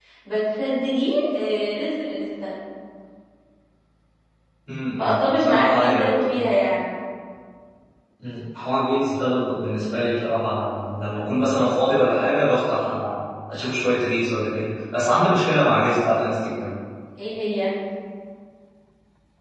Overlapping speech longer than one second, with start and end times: 5.1-6.5

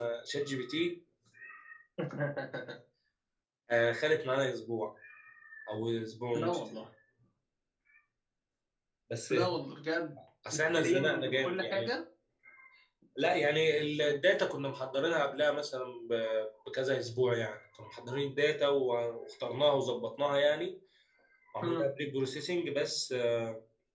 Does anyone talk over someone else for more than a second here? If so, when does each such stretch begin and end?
10.5-11.9

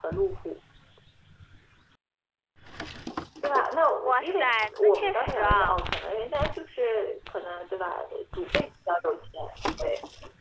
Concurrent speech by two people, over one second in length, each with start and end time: 4.0-5.7

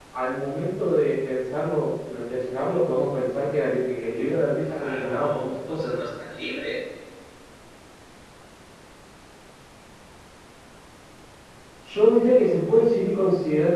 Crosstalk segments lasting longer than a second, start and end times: 4.6-5.9

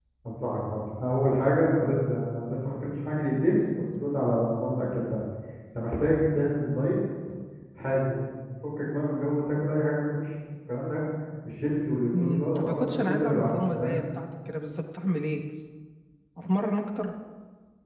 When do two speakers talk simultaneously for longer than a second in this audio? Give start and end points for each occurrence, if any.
12.1-14.0

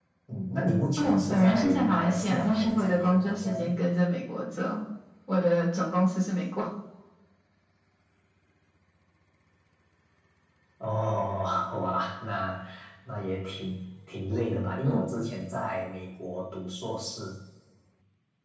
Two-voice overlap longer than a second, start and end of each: 1.0-3.6

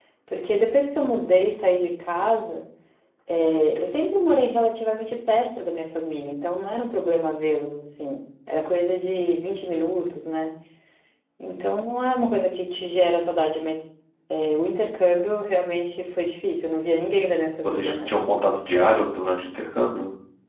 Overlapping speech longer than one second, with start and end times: none

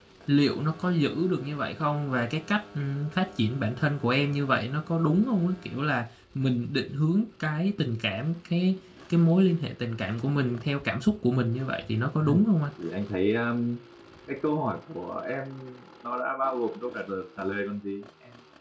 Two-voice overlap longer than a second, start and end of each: none

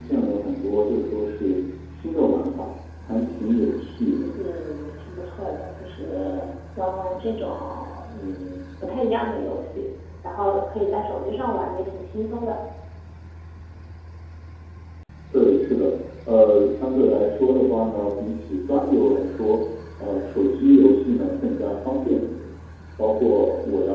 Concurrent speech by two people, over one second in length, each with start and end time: none

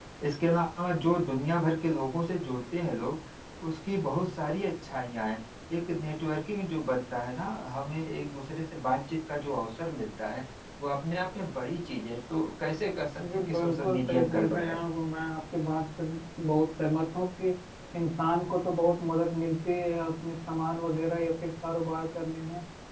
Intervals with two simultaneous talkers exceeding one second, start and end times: 13.2-14.8

